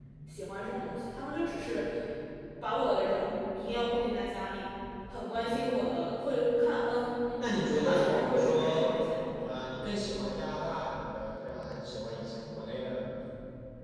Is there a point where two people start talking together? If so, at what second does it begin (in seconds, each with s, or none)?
7.4 s